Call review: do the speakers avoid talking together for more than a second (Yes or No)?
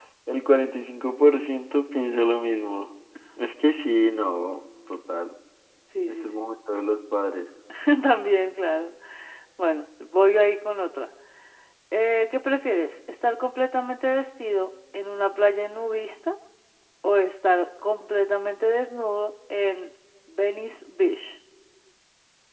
Yes